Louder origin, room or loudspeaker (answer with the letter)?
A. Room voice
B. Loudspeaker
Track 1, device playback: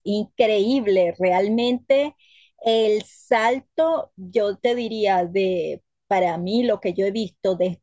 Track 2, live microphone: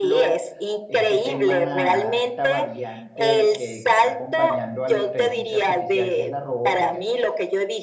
B